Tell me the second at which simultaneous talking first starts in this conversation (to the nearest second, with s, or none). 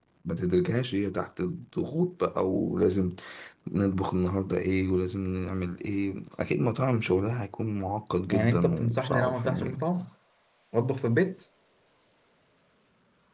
8 s